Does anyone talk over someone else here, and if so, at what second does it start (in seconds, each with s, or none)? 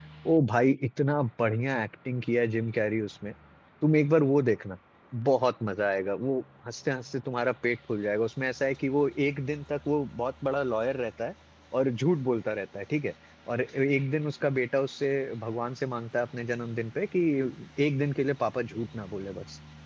none